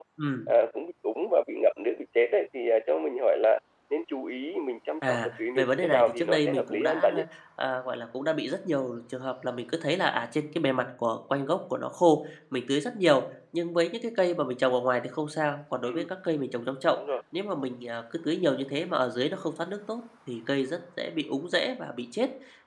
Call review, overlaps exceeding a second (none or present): present